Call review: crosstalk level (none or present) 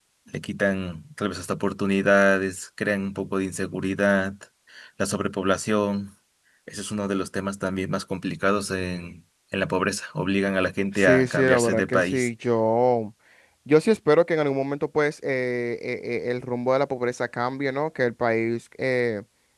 present